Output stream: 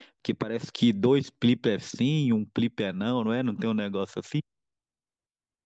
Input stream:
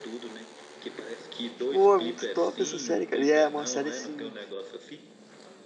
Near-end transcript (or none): Pô, é muito top essa série, cara. E é uma série, assim,